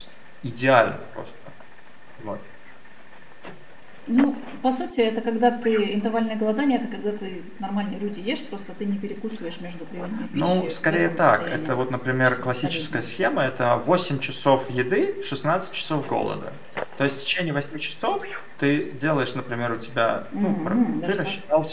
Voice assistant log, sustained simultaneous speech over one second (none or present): present